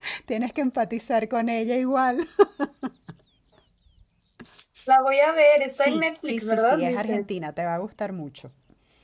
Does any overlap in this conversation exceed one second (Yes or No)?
Yes